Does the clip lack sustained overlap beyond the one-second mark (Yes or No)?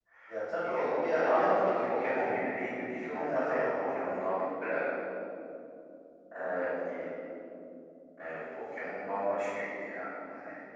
No